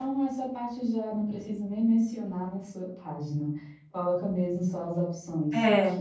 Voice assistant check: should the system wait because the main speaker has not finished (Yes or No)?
No